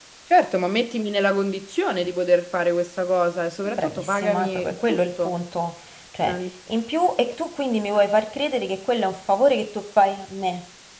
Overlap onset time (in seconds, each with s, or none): 3.6 s